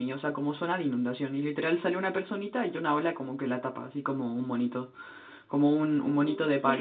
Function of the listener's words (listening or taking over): listening